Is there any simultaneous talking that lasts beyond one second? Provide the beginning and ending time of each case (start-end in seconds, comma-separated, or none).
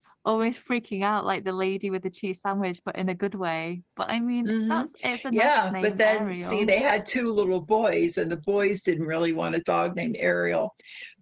5.3-6.7